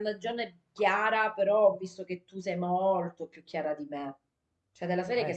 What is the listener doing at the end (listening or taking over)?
listening